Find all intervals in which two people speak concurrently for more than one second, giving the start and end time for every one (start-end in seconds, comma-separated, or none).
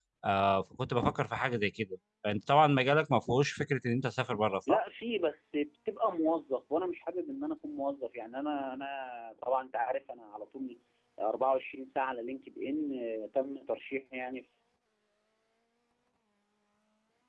none